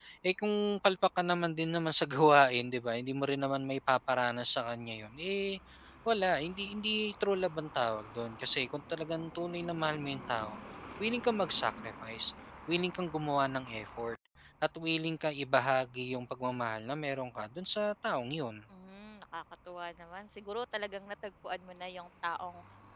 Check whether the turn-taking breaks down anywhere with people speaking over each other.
No

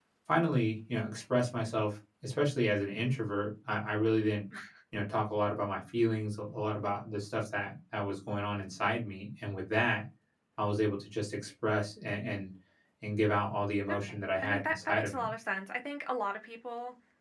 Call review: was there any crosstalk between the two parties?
Yes, from 13.9 s

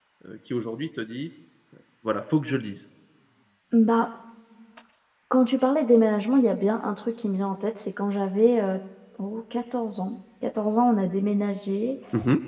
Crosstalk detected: No

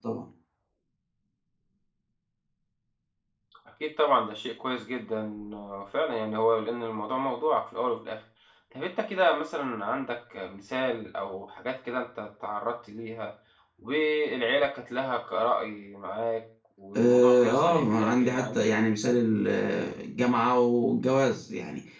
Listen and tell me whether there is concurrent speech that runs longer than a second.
Yes, from 16.9 s

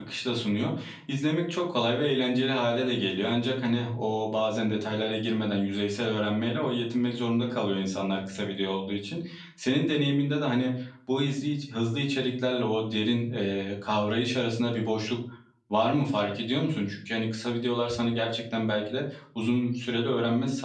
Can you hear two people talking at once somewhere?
No

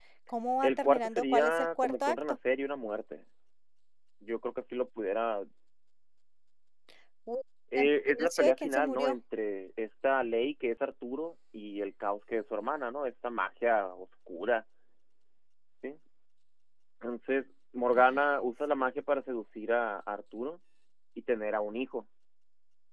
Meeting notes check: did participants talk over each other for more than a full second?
Yes, from 0.6 s

